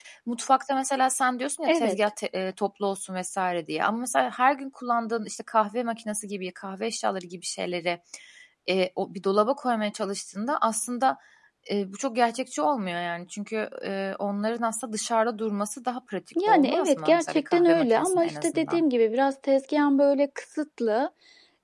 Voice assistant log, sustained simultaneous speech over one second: present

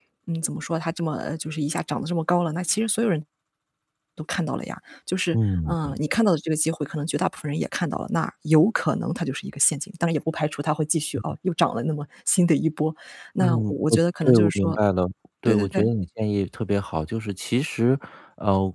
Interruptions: present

